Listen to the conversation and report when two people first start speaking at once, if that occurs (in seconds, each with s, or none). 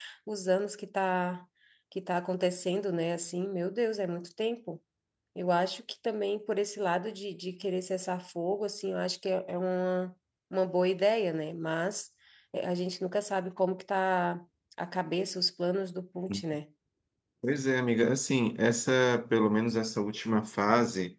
none